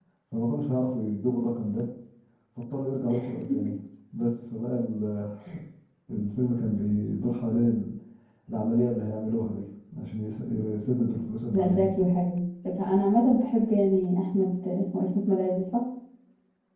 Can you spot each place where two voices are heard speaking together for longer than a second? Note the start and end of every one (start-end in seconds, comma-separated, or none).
none